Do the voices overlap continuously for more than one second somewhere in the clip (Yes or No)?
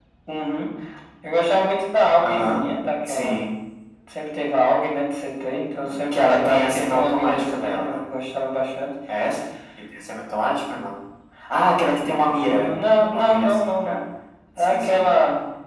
Yes